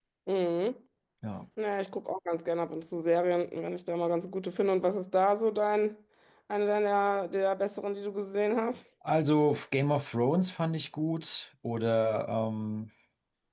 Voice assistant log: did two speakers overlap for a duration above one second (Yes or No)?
No